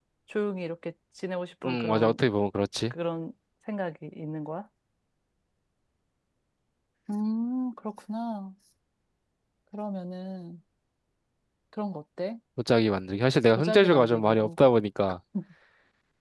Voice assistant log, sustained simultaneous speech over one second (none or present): present